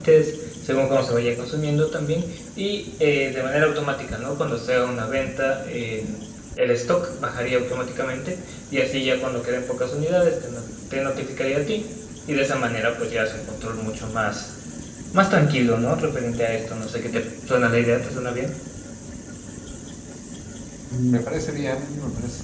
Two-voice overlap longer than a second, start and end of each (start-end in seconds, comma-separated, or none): none